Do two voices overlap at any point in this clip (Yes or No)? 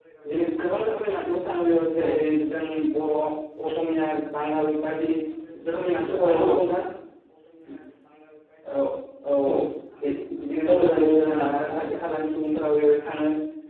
Yes